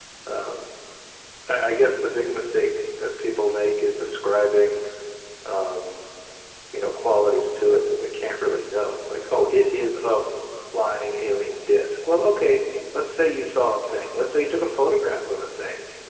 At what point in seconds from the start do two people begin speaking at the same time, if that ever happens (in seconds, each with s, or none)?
none